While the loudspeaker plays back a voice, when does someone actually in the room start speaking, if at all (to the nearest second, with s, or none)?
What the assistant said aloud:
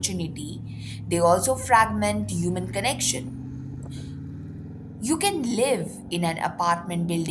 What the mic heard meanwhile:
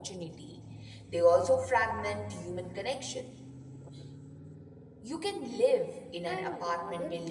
6 s